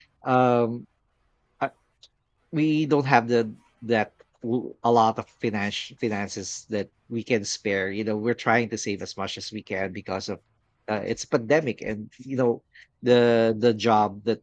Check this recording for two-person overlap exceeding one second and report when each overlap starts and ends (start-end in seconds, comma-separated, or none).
none